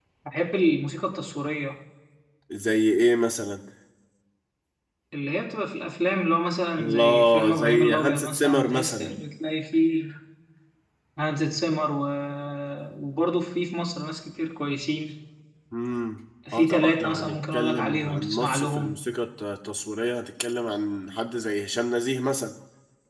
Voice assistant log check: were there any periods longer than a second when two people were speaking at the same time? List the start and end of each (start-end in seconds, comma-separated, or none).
6.8-9.2, 16.5-19.0